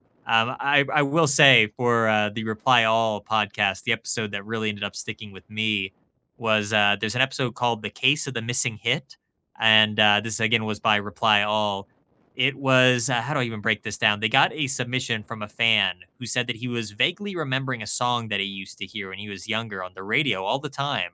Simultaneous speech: No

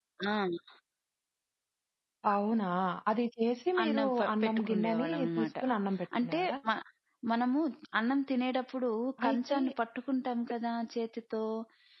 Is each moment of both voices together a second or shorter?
No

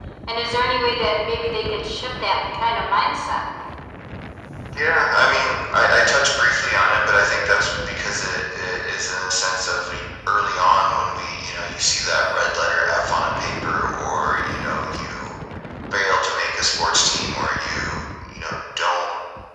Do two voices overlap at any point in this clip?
No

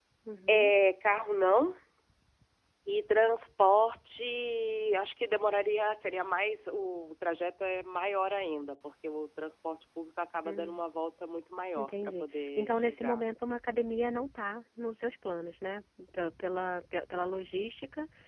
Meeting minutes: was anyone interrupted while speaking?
Yes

